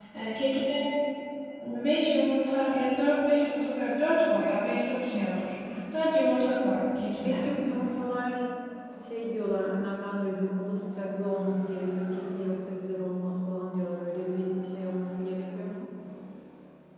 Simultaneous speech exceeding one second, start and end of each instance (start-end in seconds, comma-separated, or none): none